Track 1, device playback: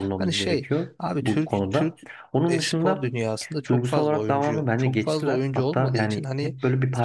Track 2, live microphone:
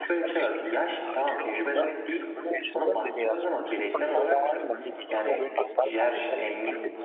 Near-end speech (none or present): present